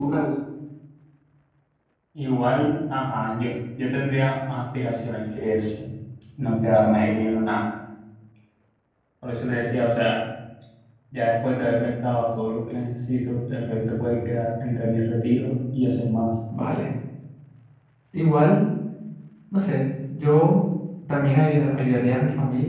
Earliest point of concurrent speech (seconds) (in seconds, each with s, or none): none